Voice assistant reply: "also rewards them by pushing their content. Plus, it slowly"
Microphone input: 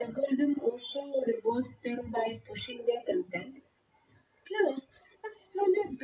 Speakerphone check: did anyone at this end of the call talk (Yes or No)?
No